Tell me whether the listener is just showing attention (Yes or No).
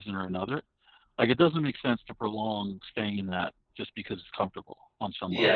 No